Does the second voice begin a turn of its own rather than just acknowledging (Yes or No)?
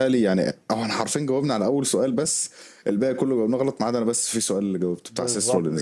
Yes